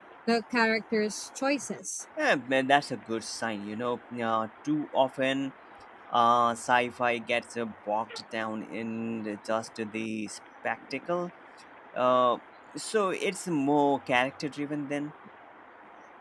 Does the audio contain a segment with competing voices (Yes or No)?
No